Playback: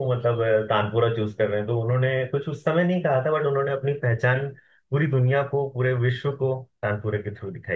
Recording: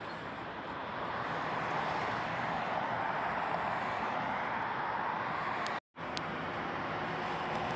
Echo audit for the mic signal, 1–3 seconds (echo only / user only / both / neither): neither